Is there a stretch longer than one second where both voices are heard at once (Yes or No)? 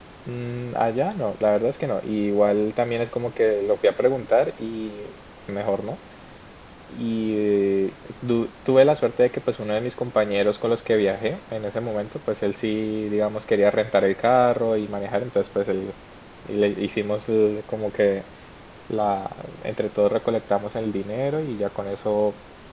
No